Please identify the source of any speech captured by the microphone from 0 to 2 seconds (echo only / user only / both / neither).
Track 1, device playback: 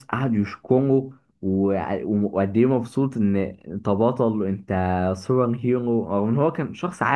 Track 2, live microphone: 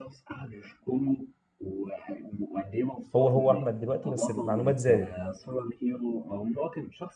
echo only